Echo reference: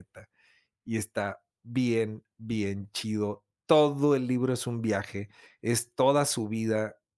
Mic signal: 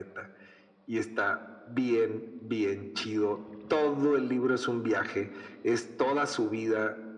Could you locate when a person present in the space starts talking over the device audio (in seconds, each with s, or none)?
none